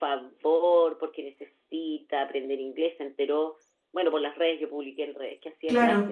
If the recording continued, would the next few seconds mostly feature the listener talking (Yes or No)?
No